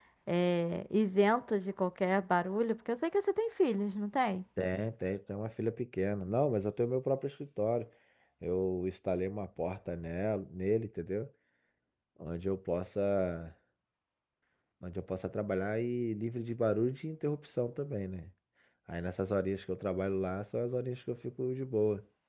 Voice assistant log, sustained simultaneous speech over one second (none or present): none